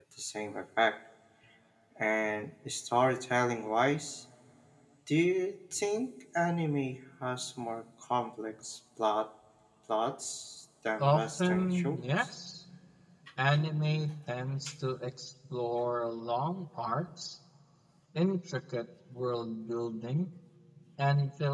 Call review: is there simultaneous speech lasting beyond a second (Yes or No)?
Yes